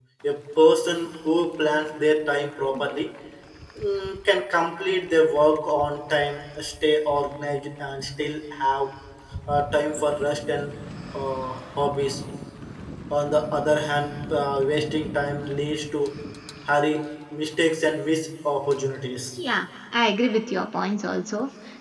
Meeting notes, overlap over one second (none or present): none